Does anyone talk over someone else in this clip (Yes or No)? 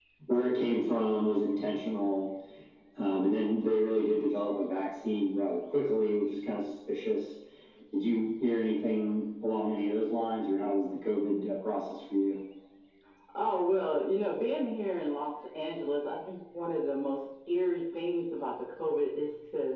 No